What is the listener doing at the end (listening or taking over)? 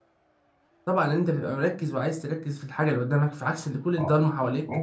taking over